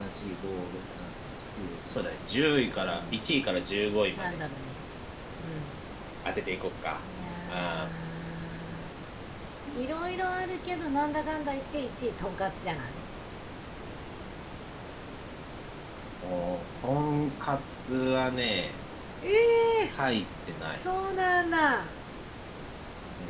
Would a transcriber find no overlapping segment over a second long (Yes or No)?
Yes